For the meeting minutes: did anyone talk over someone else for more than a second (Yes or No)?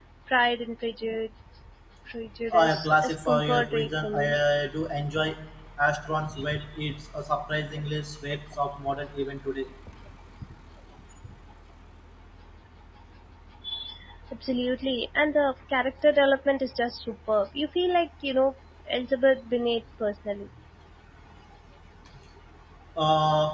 Yes